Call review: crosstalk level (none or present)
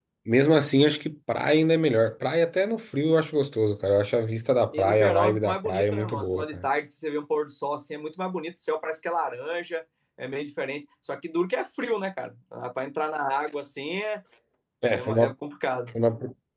present